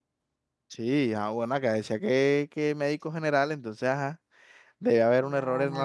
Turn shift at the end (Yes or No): No